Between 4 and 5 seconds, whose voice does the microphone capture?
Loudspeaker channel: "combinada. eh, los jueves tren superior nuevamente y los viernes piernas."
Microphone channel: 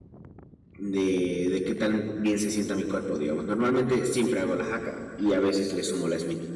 user only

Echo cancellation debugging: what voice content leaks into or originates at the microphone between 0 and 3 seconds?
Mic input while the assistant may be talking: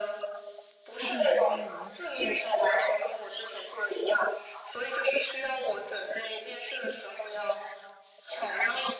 both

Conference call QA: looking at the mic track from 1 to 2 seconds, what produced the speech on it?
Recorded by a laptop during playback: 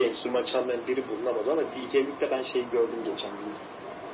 echo only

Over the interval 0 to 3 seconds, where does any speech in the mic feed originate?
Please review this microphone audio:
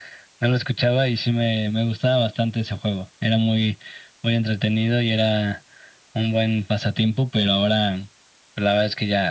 echo only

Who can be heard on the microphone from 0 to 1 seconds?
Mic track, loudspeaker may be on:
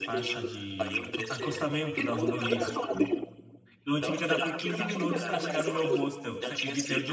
both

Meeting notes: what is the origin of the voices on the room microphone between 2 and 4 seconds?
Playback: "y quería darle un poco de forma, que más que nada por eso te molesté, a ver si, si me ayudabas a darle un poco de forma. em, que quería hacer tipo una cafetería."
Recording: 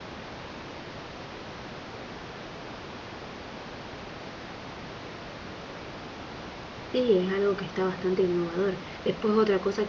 neither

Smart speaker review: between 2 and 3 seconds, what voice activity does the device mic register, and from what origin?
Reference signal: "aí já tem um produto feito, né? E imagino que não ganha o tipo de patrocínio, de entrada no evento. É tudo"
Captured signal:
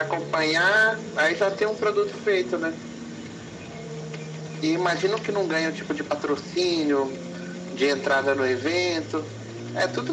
echo only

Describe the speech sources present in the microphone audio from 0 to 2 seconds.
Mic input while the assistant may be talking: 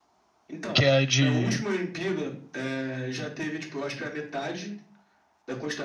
both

